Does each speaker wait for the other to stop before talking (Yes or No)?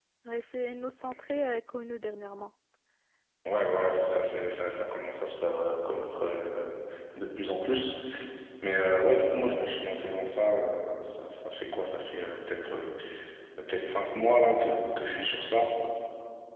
Yes